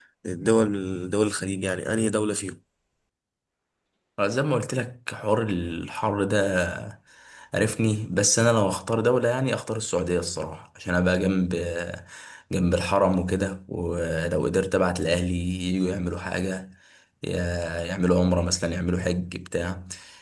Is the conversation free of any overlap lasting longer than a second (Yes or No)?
Yes